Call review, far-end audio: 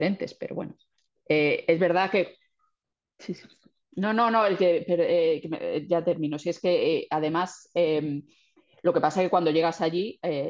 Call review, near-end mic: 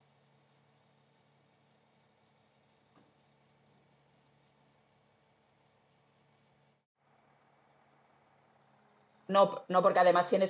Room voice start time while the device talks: 9.3 s

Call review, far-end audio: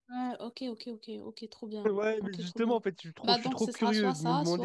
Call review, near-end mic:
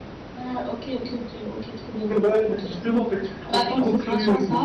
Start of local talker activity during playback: none

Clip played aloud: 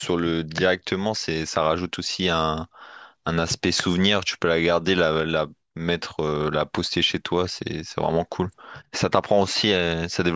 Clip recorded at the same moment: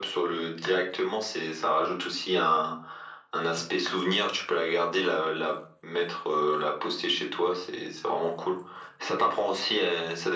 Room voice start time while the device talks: none

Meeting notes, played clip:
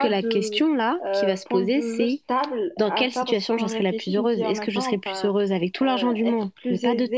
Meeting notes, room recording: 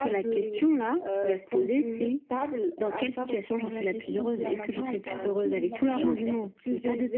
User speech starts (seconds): 4.0 s

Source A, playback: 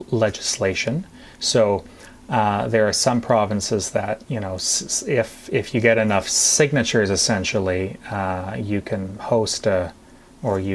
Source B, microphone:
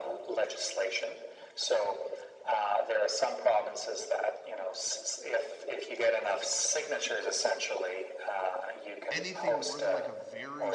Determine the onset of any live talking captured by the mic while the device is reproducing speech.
9.1 s

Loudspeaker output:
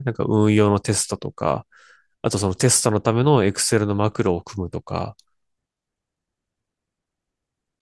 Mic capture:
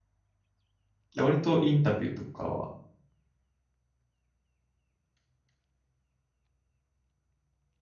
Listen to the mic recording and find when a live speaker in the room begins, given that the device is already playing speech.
1.1 s

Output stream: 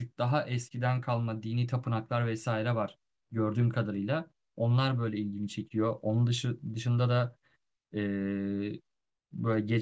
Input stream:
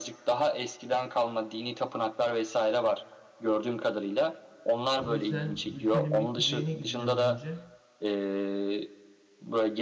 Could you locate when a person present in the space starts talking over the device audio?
5.0 s

